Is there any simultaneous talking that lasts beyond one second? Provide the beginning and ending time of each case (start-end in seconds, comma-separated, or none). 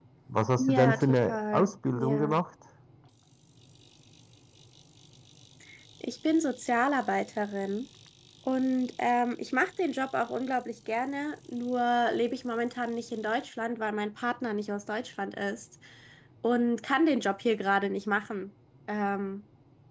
0.6-2.4